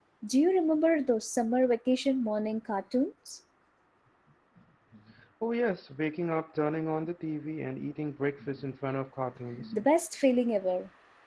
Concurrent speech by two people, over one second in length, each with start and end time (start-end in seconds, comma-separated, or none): none